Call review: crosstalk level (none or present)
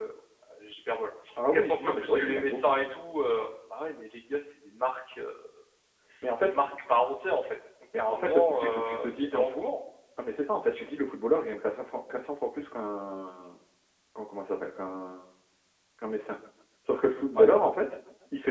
present